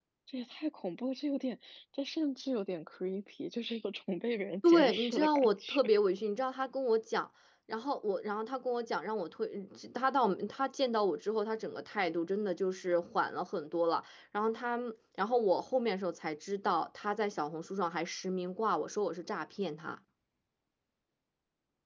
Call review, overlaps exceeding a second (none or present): present